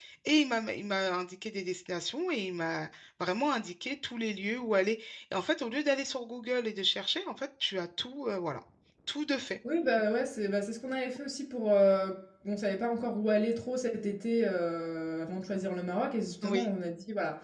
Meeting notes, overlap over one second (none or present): none